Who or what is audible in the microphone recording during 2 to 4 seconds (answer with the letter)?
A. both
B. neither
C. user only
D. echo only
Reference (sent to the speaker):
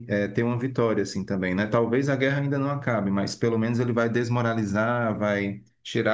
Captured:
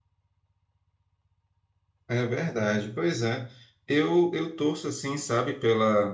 C